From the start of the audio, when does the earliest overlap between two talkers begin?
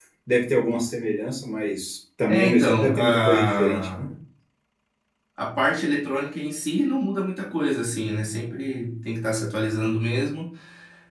2.3 s

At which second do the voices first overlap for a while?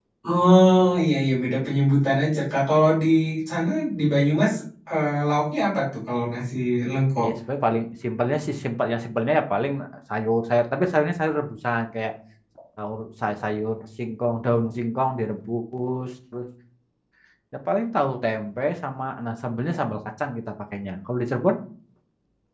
none

